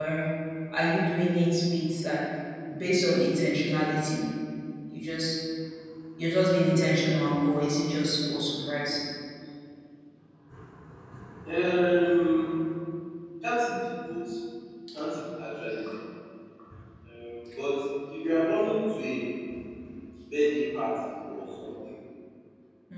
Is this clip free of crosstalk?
Yes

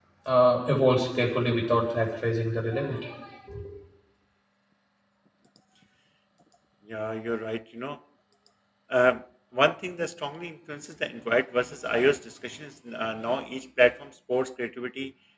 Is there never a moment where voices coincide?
Yes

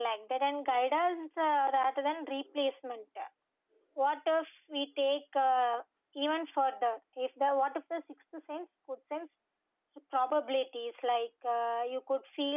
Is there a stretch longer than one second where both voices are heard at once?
No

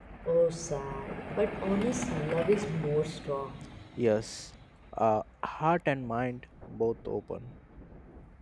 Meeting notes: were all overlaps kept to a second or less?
Yes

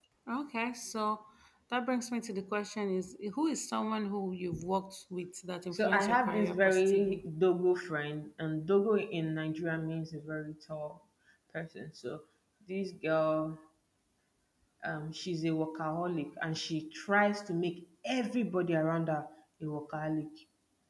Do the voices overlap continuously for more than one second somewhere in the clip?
Yes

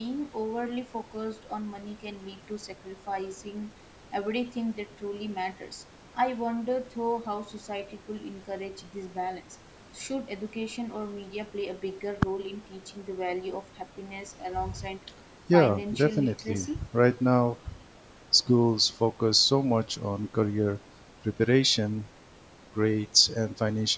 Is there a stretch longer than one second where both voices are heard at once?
Yes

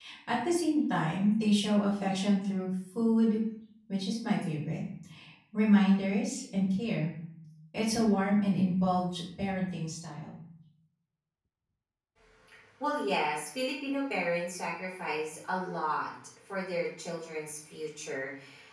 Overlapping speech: No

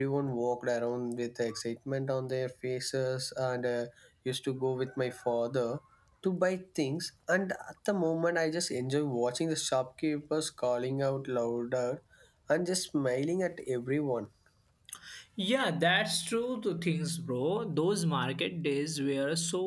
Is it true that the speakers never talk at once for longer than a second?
Yes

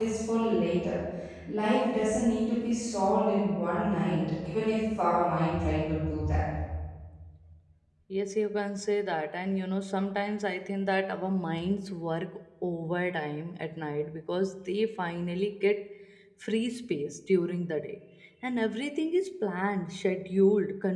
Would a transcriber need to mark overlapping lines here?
No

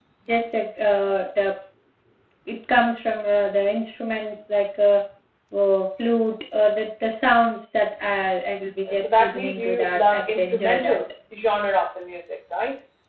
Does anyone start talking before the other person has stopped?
Yes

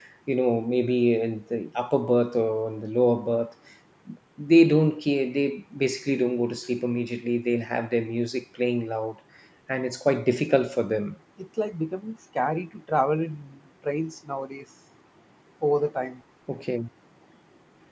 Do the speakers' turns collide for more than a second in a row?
No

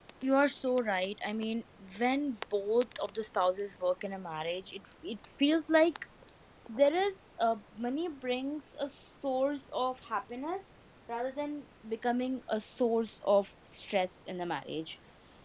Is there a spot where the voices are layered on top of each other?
No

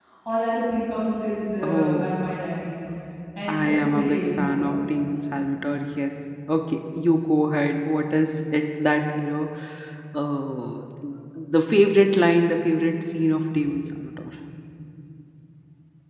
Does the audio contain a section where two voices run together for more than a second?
Yes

